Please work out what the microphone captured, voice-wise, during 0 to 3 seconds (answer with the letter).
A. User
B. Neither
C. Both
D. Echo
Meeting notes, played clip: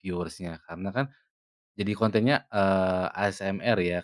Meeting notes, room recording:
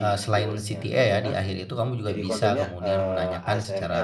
C